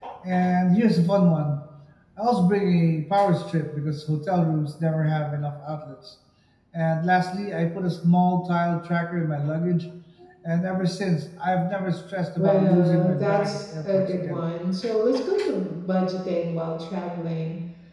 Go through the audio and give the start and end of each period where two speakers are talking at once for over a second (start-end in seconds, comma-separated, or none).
12.4-14.4